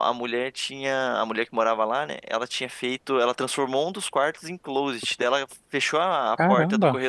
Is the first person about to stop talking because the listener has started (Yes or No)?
No